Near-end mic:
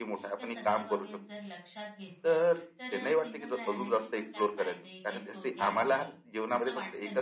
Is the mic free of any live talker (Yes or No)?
No